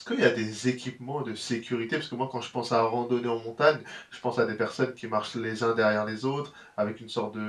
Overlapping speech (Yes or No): No